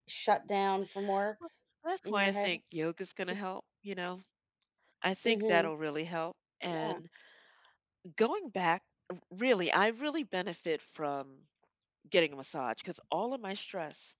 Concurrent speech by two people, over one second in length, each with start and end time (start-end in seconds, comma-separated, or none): none